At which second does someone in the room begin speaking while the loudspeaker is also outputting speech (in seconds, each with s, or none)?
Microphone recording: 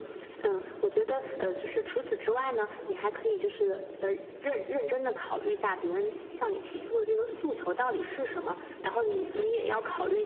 none